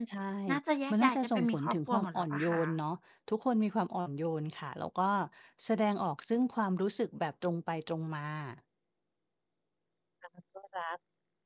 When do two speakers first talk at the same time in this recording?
0.9 s

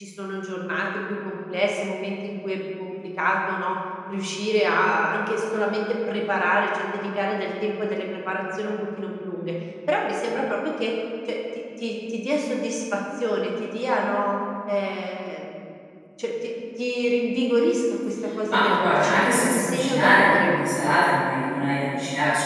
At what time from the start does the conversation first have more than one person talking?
18.5 s

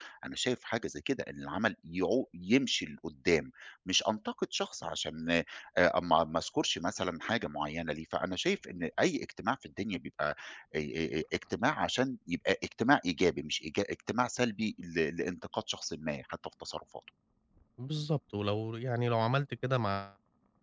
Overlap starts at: none

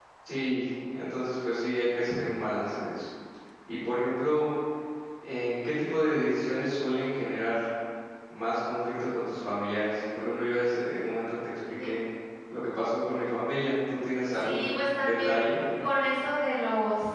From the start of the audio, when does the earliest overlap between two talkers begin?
14.4 s

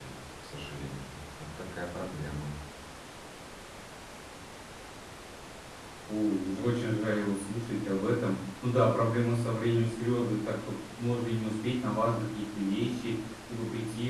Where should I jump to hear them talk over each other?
none

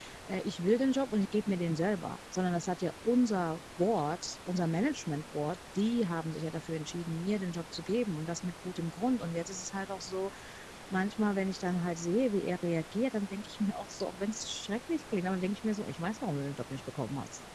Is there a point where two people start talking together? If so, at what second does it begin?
none

